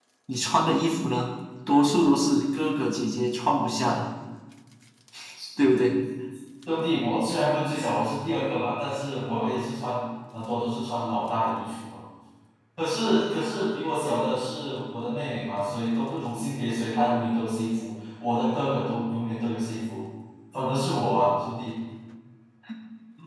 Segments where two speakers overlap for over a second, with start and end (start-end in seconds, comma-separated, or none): none